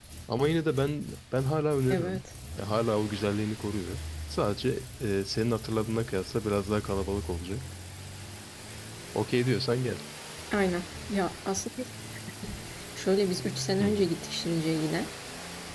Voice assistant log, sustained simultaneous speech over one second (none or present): none